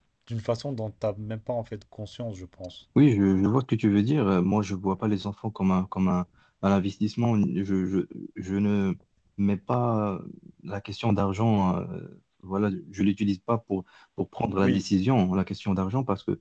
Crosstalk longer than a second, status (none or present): none